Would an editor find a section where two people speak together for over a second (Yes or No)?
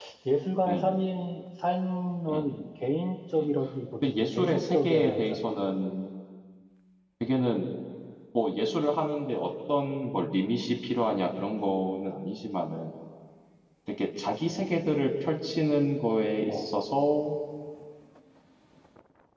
Yes